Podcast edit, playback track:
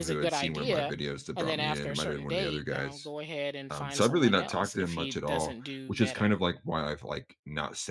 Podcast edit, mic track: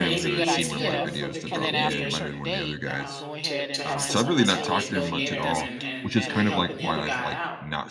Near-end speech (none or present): present